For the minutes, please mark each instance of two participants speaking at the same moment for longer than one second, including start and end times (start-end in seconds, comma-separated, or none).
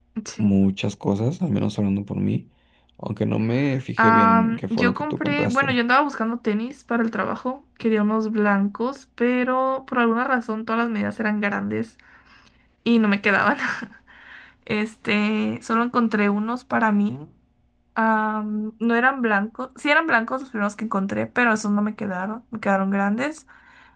4.0-5.8